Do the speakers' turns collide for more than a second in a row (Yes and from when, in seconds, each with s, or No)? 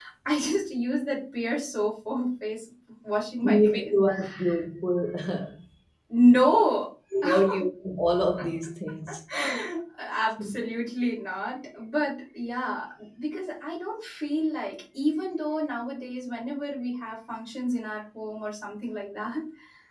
No